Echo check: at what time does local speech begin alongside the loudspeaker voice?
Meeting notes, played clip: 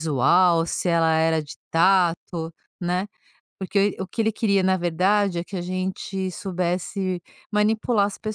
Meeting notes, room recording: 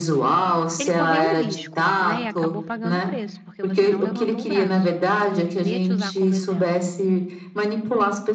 0.8 s

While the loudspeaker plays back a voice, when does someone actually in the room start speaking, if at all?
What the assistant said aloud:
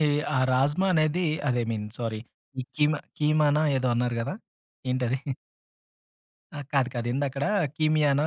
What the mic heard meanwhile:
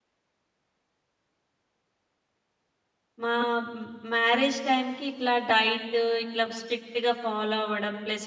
3.2 s

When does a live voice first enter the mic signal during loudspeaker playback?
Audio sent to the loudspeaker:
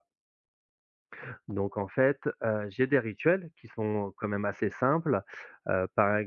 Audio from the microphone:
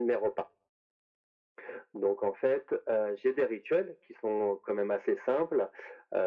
none

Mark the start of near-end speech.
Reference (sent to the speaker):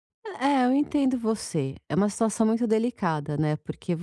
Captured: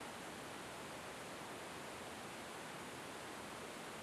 none

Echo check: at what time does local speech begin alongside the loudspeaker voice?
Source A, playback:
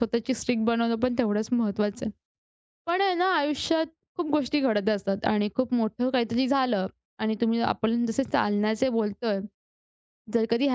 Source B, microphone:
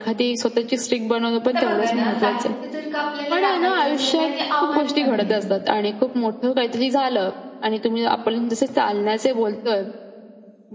1.4 s

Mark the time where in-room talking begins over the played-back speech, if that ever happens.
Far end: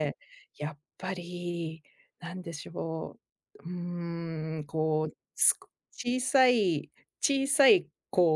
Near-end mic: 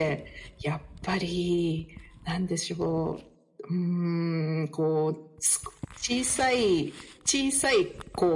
none

